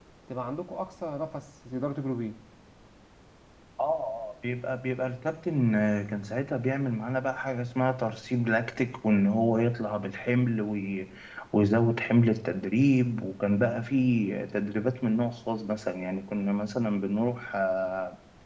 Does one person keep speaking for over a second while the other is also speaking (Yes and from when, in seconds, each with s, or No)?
No